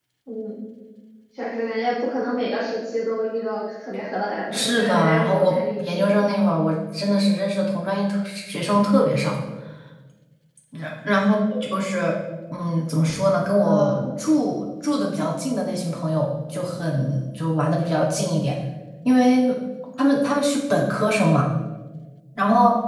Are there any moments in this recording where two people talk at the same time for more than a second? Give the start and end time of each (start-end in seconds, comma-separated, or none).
4.5-6.2